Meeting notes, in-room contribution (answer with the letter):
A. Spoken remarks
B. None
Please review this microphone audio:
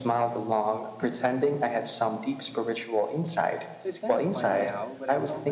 A